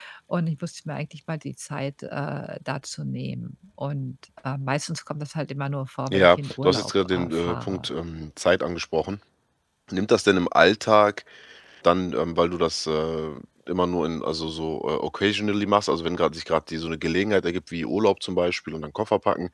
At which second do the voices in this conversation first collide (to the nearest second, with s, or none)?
6 s